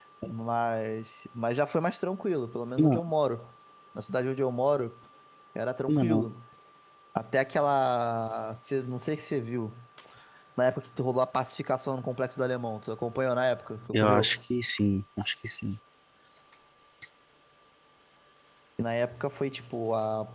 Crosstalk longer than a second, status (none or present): none